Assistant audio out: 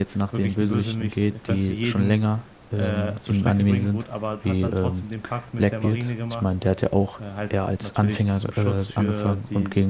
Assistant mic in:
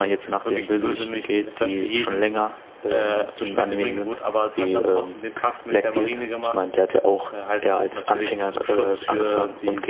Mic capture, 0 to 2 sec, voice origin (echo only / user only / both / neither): echo only